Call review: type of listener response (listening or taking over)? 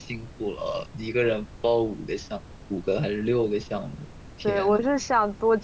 taking over